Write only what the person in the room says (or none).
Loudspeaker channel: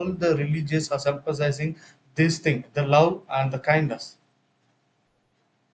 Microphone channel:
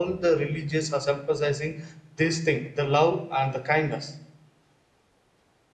none